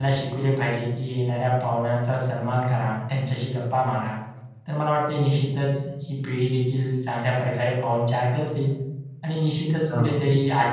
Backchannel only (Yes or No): Yes